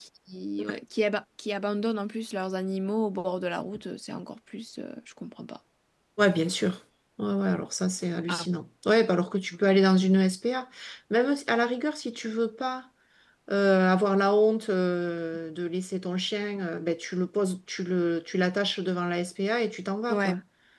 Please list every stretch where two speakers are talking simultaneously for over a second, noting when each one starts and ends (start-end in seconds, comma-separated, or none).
none